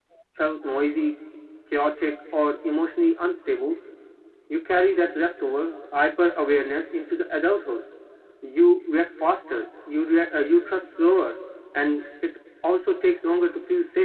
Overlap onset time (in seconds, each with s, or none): none